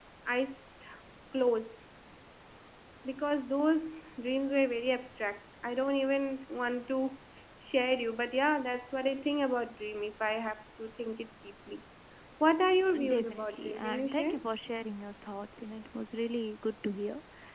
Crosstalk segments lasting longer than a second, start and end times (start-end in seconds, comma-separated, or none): 13.1-14.3